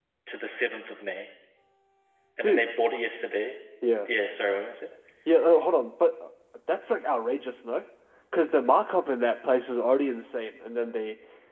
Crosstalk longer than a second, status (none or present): none